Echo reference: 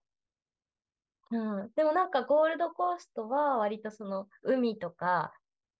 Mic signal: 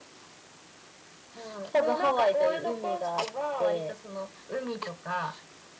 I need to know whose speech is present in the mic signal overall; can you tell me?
both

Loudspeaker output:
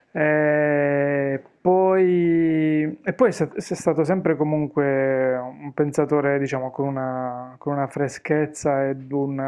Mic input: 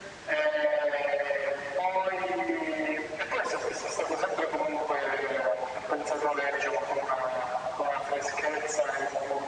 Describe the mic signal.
echo only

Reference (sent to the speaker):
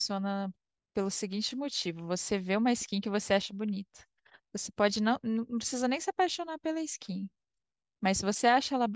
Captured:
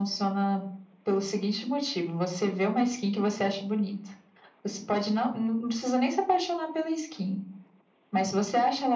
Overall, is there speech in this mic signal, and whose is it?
echo only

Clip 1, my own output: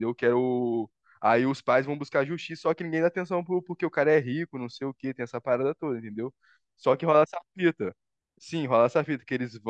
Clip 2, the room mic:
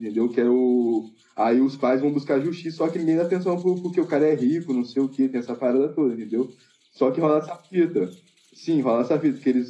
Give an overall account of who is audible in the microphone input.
echo only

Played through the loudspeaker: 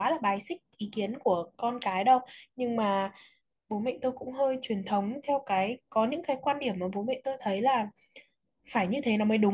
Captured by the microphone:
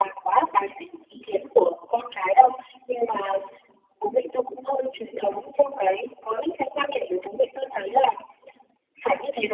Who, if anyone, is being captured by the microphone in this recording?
echo only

